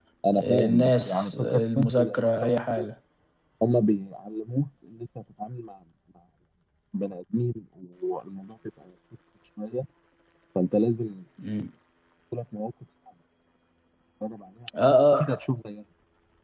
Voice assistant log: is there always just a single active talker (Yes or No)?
No